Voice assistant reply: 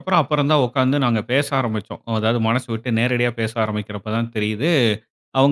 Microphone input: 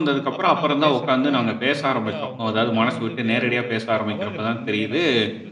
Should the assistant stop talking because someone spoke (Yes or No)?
Yes